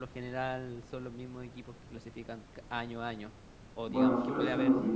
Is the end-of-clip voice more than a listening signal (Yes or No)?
Yes